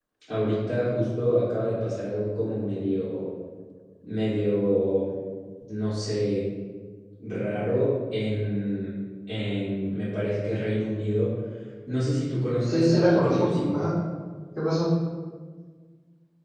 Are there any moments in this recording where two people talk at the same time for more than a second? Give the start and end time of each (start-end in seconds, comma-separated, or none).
12.6-13.9